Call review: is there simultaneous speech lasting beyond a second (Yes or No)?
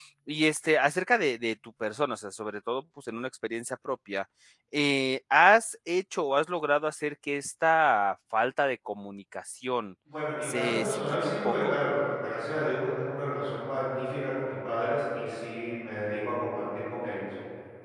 Yes